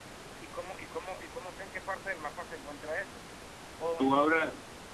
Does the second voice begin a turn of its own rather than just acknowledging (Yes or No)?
Yes